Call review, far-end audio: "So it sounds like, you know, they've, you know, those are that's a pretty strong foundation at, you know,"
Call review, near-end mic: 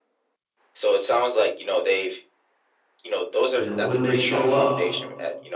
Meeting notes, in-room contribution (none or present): present